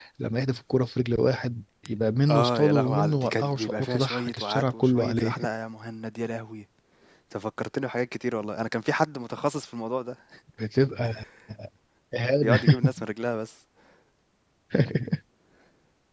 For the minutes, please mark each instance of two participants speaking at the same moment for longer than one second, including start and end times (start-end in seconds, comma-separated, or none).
2.3-5.4